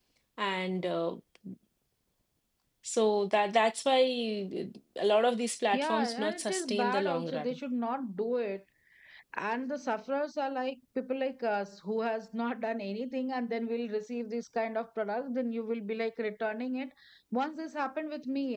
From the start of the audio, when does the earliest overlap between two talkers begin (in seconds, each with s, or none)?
5.7 s